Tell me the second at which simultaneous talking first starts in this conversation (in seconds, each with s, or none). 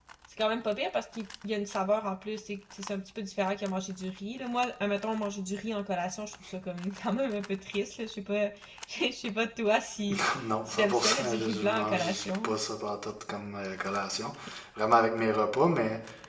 10.7 s